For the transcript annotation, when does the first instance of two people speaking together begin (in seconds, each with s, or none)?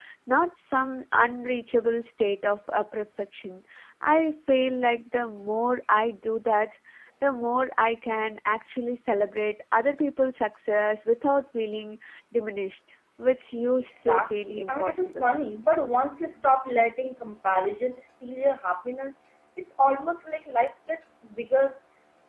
13.9 s